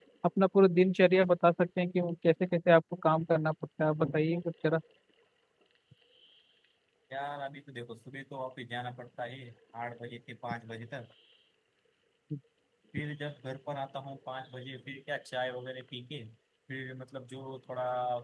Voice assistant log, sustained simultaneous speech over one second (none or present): none